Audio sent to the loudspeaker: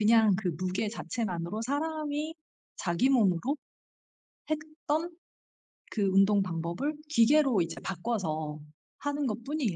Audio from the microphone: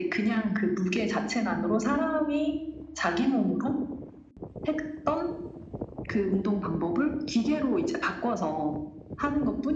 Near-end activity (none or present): none